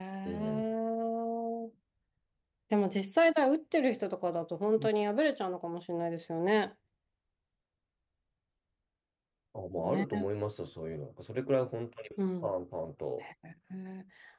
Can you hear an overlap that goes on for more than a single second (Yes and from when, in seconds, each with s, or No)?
No